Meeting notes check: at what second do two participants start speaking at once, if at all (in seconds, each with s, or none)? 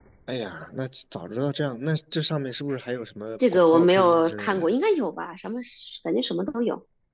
3.4 s